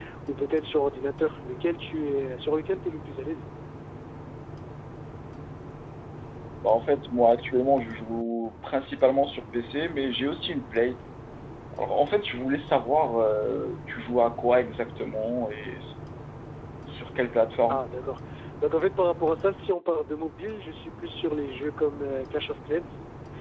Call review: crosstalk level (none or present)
none